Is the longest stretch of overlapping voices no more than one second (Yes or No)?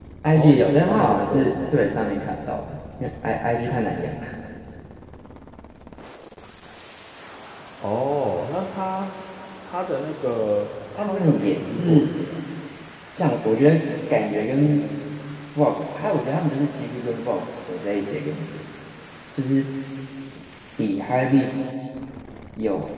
No